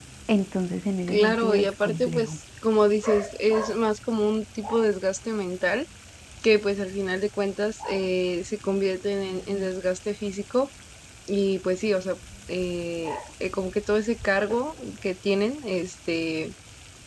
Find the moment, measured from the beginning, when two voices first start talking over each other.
1.1 s

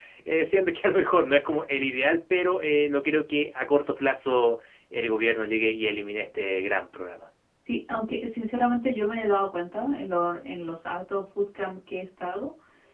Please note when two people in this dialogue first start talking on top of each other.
none

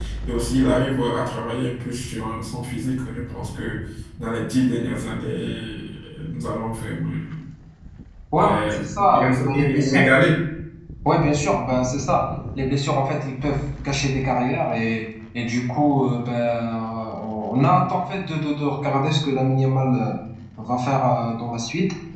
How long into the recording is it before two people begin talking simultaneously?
8.4 s

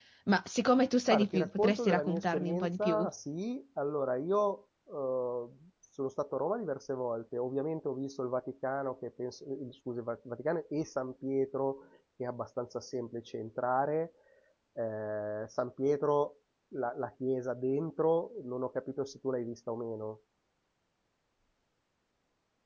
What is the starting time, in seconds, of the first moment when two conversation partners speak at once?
1.1 s

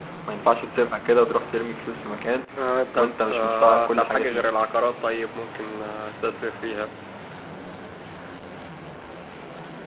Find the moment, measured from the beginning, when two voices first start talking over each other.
2.9 s

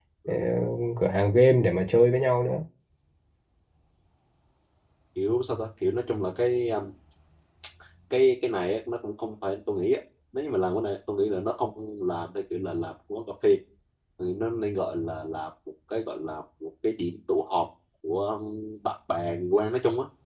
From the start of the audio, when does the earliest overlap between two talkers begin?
none

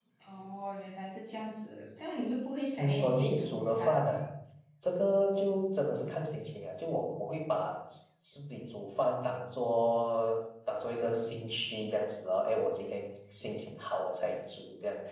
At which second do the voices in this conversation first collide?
2.8 s

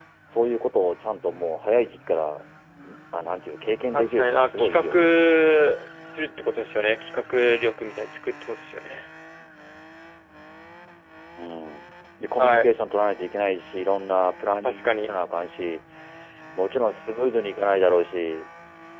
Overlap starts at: 3.9 s

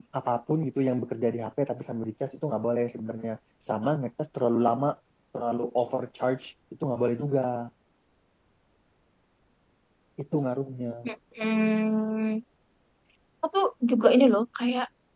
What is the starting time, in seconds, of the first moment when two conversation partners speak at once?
none

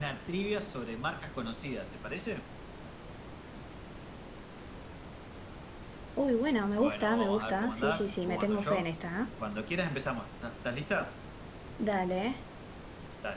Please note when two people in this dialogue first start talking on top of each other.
6.8 s

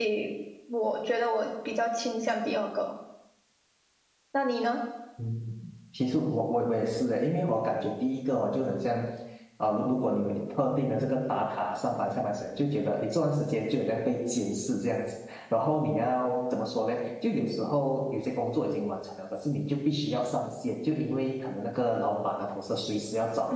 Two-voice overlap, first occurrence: none

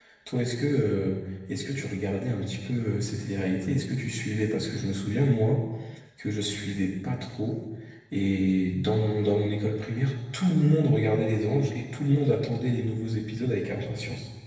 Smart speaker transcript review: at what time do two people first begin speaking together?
none

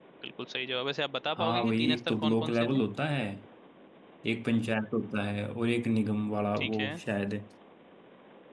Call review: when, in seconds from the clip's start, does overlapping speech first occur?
1.4 s

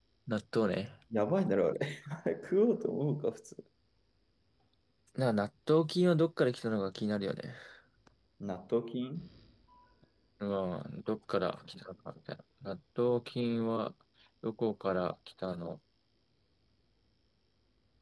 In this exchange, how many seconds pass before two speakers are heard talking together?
none

